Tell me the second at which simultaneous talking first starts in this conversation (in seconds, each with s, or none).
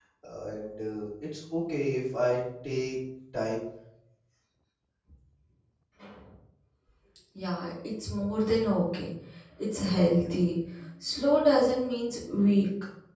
none